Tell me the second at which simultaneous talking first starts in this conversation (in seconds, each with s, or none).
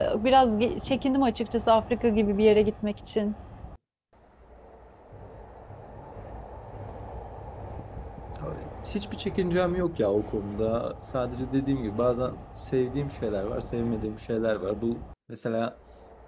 none